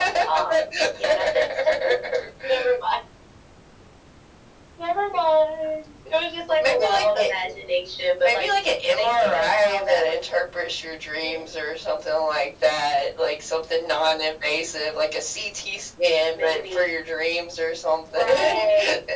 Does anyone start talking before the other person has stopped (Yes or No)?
Yes